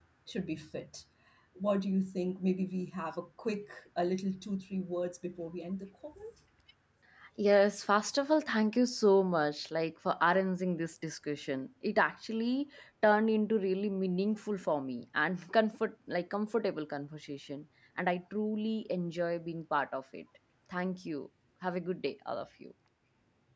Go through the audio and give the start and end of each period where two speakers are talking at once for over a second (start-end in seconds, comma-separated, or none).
none